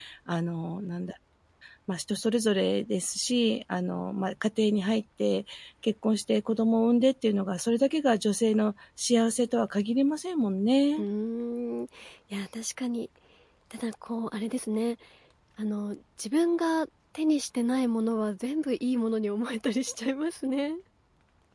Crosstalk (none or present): none